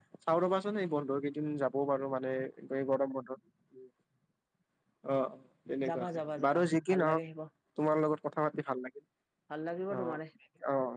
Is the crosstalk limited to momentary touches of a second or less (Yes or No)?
No